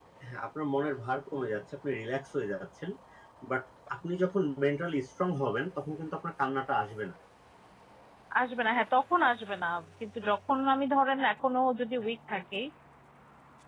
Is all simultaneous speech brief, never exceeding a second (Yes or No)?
Yes